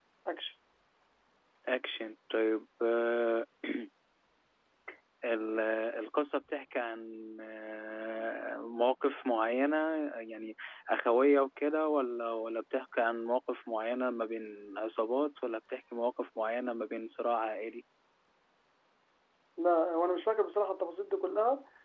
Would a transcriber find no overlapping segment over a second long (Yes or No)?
Yes